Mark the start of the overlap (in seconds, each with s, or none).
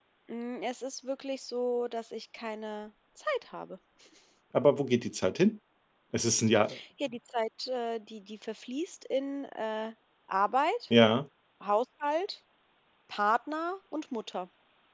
none